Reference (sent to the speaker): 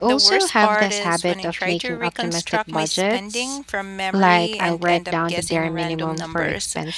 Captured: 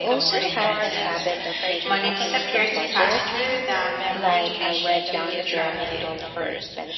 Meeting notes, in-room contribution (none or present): present